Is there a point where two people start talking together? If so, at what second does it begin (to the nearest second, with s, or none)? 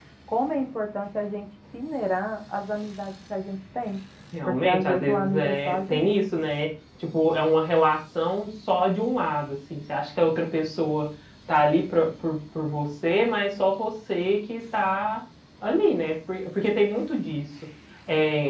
4 s